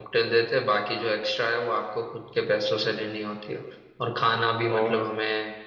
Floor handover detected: No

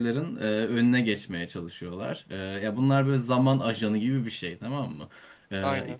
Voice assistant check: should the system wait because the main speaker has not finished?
Yes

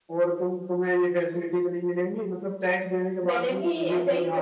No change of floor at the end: No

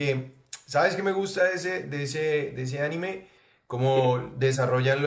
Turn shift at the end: No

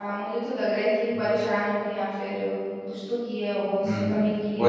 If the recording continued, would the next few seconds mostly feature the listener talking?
Yes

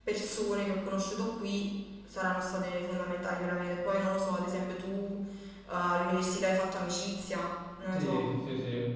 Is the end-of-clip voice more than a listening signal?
Yes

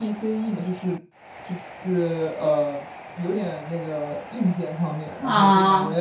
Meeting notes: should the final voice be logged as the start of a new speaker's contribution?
No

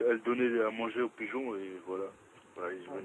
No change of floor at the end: No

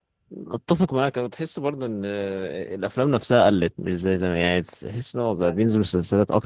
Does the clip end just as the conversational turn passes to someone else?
No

